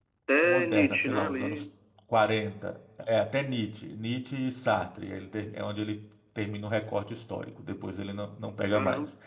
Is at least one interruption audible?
Yes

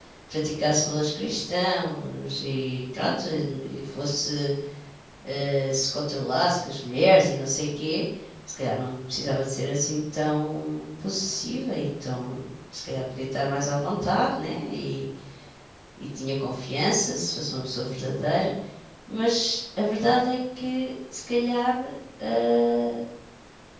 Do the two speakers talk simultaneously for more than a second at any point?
No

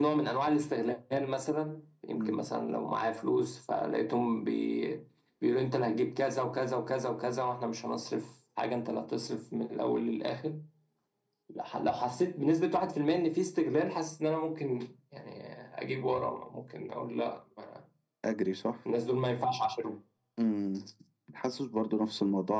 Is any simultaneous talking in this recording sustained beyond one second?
No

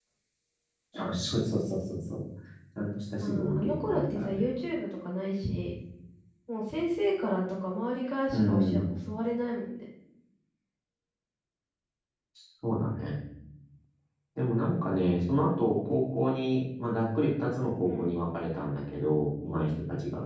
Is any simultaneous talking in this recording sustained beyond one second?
Yes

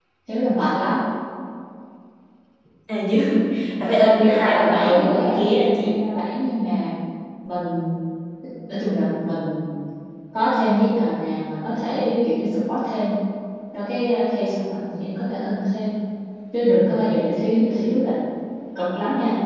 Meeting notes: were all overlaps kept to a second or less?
No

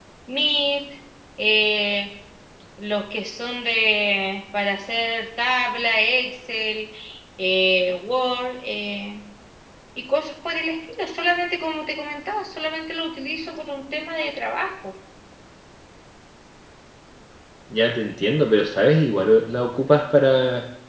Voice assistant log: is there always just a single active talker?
Yes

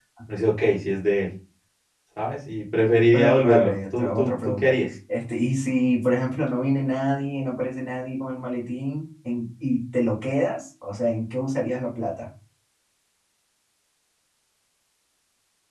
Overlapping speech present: Yes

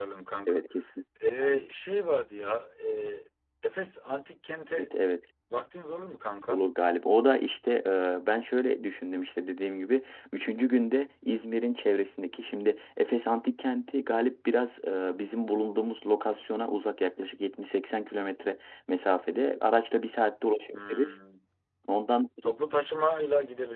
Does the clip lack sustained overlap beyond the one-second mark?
Yes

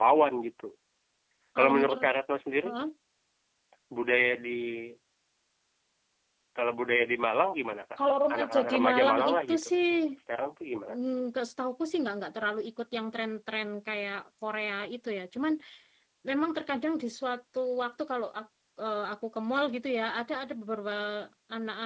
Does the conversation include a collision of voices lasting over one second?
Yes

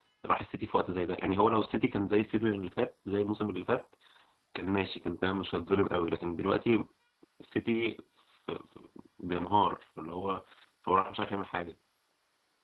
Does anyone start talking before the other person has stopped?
No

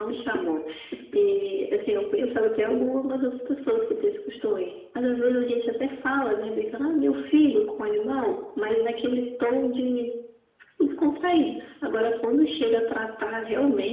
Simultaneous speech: No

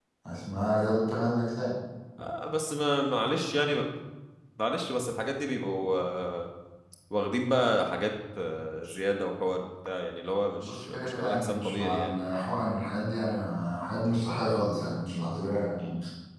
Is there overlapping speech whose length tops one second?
Yes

